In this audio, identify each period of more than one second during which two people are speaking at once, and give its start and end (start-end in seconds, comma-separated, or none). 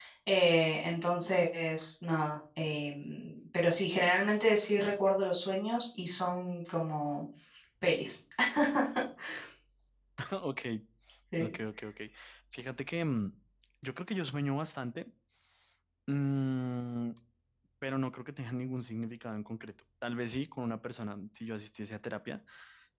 none